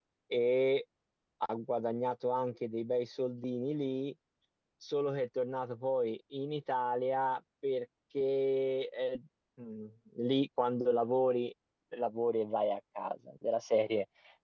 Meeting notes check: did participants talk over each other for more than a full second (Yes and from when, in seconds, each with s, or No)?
No